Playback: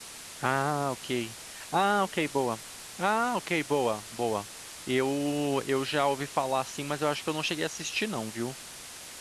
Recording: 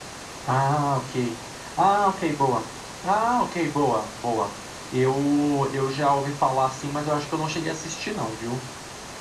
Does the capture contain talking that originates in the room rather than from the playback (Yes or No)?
No